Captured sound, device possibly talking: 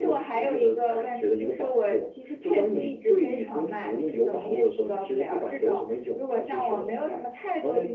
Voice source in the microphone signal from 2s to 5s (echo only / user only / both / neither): echo only